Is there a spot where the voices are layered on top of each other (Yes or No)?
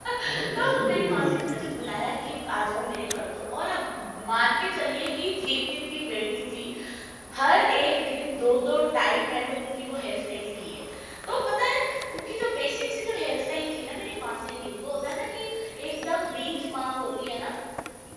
Yes